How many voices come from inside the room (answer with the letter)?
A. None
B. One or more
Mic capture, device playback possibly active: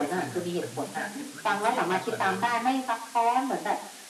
B